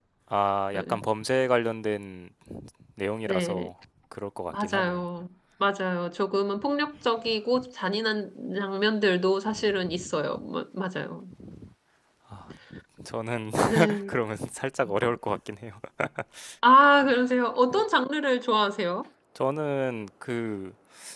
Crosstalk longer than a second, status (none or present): none